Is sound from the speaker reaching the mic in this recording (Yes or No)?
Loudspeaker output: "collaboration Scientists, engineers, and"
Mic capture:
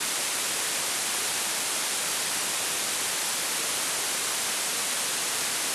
No